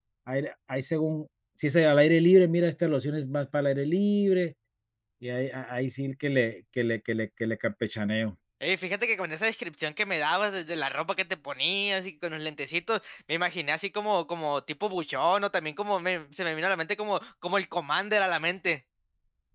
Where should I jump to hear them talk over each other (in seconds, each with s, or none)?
none